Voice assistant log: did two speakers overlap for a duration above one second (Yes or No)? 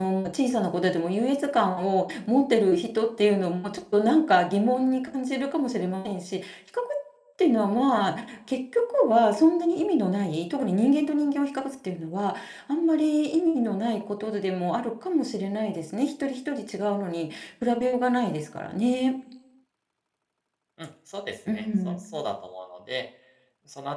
No